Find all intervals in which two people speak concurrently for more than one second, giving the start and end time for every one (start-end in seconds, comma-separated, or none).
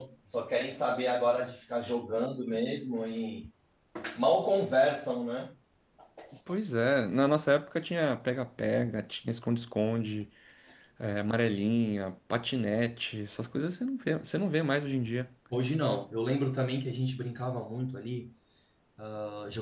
none